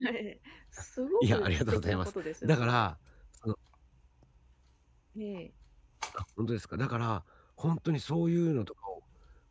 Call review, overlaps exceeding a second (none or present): present